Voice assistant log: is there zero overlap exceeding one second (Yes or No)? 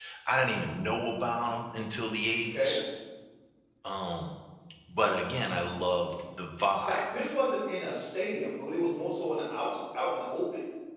Yes